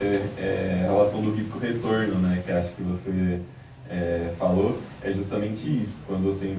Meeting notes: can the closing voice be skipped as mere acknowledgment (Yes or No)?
Yes